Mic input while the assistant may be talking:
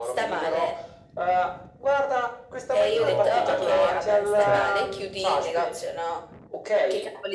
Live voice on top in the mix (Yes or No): No